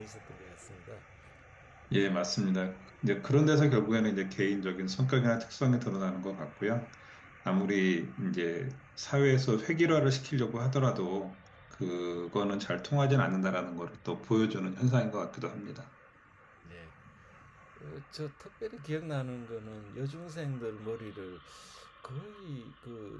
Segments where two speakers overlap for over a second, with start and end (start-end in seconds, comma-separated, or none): none